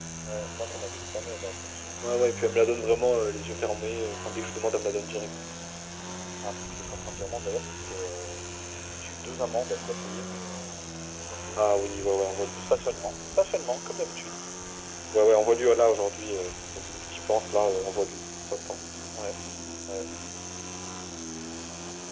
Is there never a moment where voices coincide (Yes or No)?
Yes